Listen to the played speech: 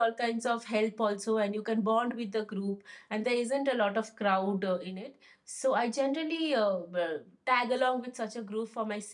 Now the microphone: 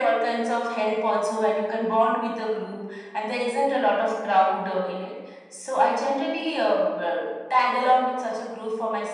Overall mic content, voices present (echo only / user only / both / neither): echo only